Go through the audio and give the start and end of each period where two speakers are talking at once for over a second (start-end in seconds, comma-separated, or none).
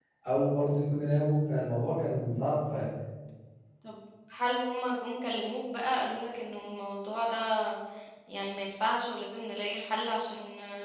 none